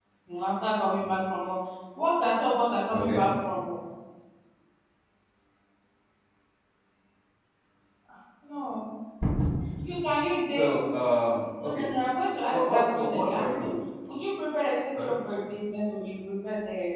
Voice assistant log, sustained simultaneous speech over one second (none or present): present